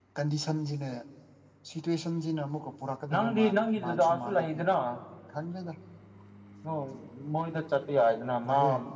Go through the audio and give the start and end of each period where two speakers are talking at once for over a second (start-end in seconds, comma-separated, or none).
3.1-4.6